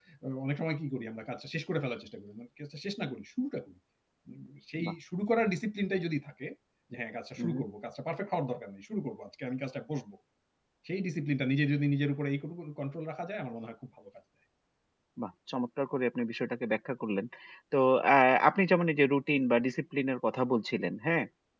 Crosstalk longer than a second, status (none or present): none